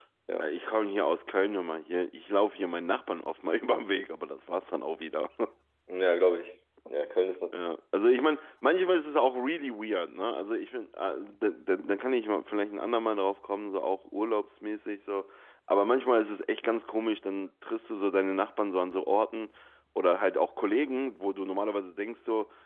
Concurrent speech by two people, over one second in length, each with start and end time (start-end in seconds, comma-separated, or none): none